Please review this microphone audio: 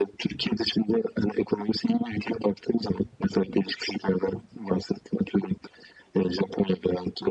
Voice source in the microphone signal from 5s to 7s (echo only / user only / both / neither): echo only